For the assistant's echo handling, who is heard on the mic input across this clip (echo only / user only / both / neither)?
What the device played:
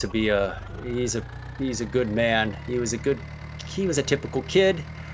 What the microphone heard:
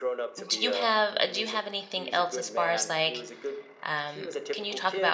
both